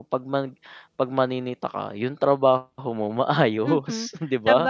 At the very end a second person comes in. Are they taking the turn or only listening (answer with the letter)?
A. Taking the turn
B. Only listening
A